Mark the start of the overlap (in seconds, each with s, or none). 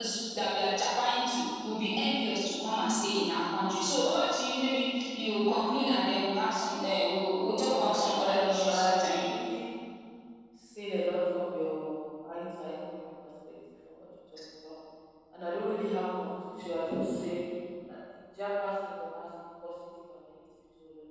7.5 s